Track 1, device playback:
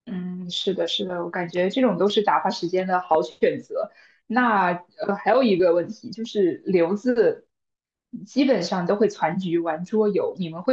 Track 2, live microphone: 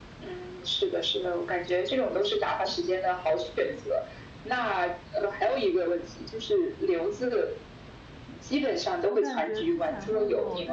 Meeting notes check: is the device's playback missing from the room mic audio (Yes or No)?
No